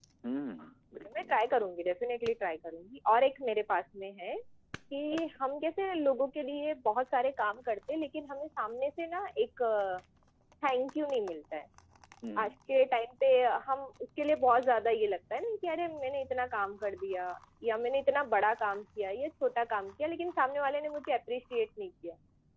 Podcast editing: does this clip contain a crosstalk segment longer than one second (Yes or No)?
No